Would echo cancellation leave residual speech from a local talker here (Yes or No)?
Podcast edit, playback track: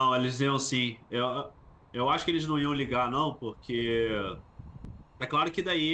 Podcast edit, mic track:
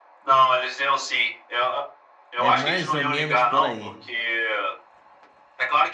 Yes